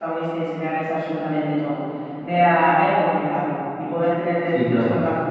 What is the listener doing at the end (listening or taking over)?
listening